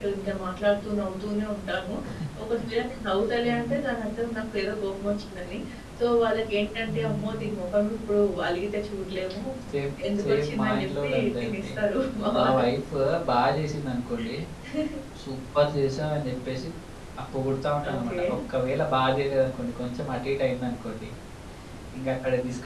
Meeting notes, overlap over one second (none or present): present